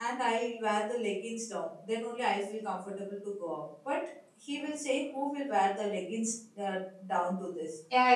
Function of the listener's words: taking over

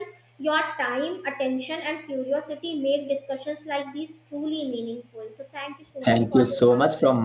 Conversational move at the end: taking over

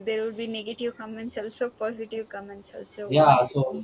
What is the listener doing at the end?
taking over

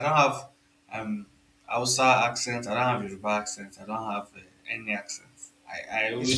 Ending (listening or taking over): listening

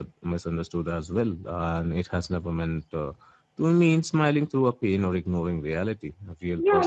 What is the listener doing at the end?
taking over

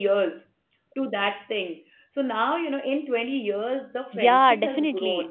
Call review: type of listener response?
taking over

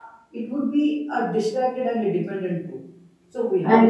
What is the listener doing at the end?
listening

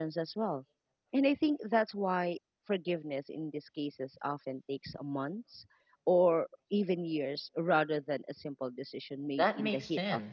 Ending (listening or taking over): taking over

